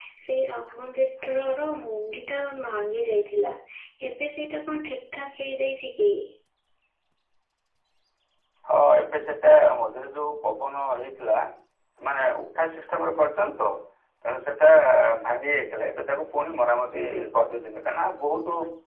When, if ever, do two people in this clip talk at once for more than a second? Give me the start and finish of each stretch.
none

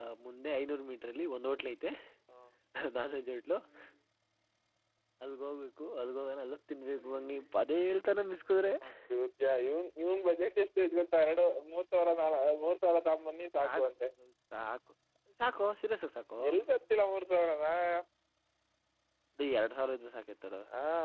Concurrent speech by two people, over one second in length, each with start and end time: none

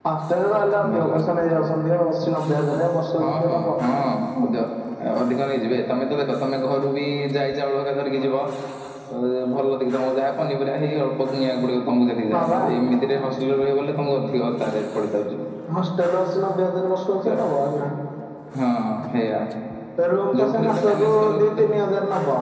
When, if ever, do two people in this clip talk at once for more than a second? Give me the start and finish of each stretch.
20.4-21.7

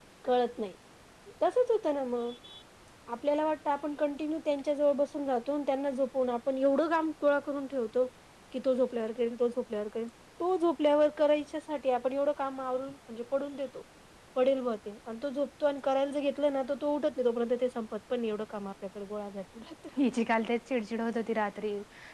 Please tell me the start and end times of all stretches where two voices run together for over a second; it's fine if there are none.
none

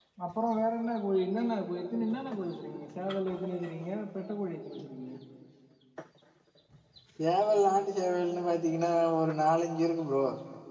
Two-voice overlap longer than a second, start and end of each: none

